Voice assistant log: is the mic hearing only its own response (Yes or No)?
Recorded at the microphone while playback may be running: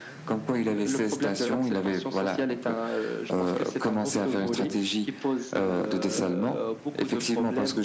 Yes